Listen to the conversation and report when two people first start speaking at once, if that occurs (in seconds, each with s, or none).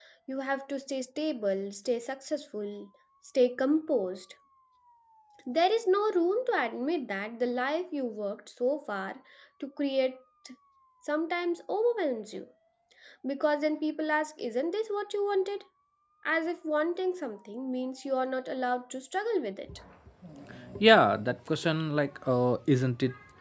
none